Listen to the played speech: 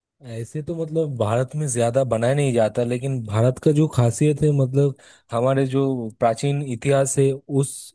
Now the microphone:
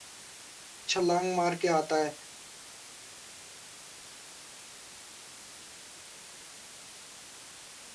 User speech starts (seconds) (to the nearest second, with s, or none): 1 s